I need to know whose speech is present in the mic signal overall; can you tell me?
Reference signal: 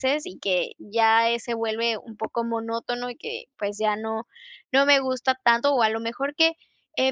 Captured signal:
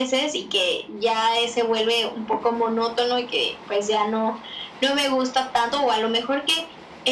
echo only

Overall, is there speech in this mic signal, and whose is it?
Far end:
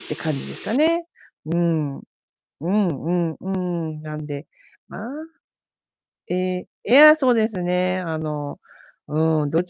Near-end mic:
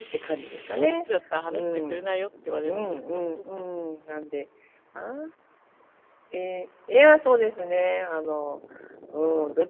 both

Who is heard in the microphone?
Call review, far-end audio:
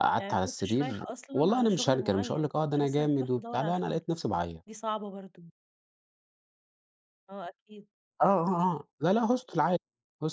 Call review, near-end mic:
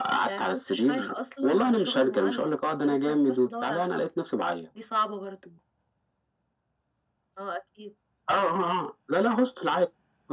echo only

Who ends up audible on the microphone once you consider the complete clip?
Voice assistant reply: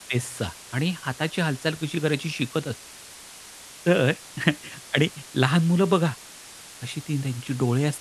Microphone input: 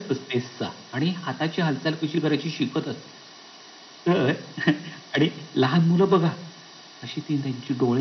echo only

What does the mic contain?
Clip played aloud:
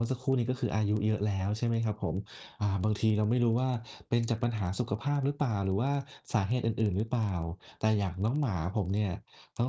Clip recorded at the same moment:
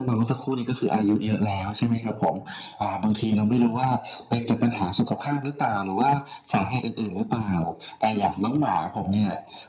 echo only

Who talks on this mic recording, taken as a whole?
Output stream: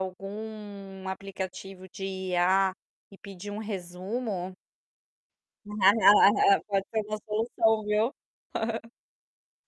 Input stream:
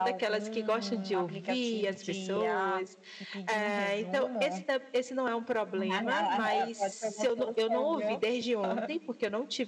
both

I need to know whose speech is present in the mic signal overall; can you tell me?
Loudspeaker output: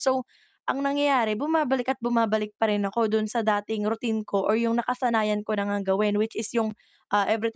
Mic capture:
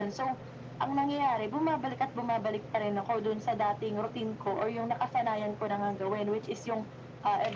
echo only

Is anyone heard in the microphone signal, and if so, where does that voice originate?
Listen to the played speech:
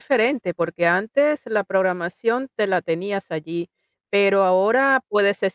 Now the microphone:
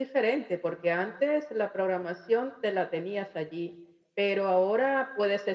echo only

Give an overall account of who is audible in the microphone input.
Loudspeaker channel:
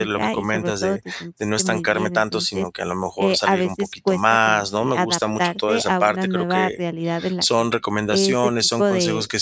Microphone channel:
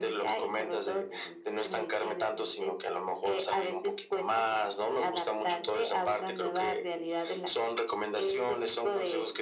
echo only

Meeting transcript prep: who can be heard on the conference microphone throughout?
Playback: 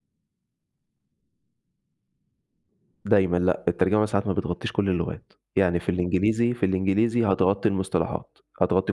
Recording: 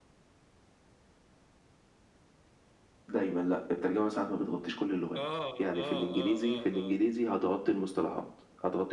both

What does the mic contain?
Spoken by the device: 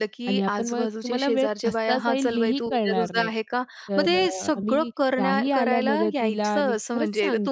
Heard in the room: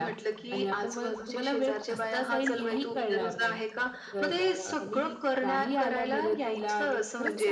echo only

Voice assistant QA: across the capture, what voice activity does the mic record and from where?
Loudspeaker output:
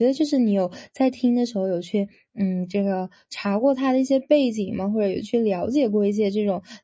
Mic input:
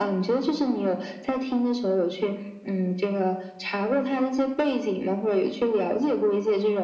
echo only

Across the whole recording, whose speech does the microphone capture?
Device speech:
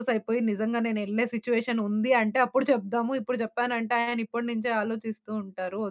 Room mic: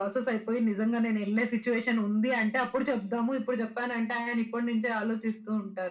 echo only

